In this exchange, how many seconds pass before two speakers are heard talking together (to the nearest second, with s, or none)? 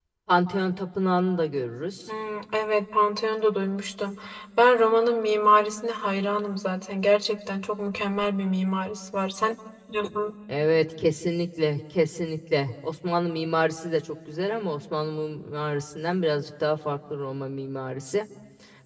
none